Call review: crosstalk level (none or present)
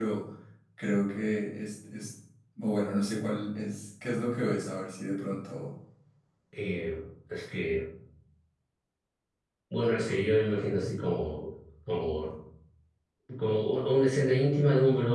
none